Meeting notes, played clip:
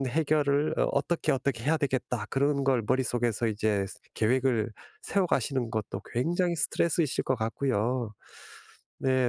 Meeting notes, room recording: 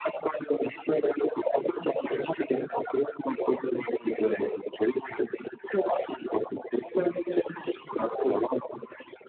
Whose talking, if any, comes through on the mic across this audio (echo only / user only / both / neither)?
echo only